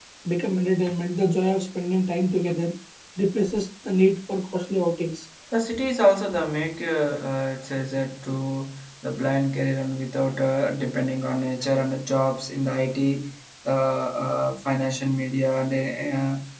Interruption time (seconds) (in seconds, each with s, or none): none